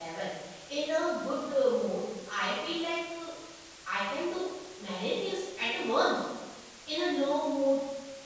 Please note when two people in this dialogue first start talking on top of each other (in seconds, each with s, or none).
none